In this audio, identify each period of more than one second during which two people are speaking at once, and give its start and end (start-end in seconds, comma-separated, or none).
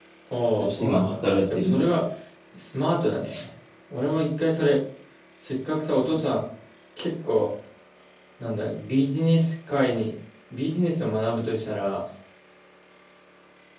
0.6-1.9